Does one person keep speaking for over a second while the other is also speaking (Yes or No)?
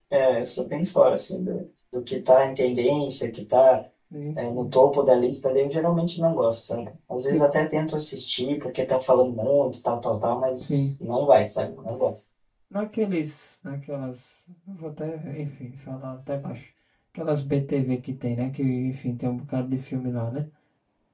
No